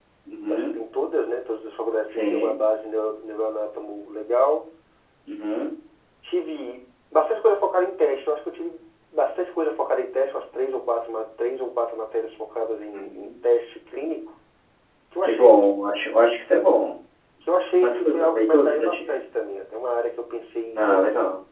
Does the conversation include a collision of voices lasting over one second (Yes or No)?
Yes